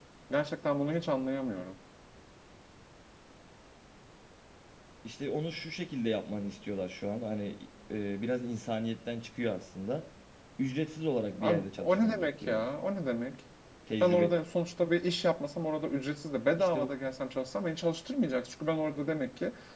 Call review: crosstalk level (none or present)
present